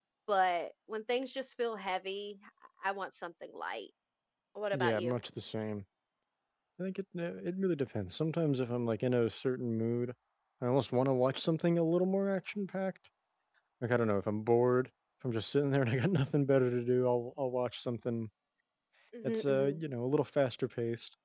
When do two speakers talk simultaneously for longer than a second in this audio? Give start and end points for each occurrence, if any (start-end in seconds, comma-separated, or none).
none